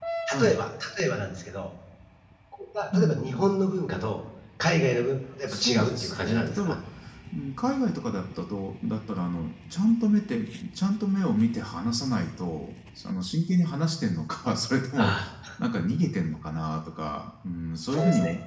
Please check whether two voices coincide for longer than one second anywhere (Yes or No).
Yes